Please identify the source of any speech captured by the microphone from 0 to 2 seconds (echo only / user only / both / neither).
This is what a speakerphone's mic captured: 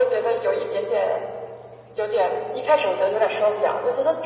echo only